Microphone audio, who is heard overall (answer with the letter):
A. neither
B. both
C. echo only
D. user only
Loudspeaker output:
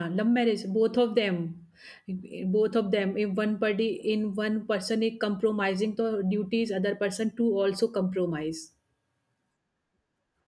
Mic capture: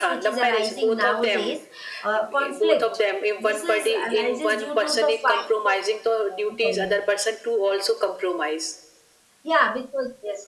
B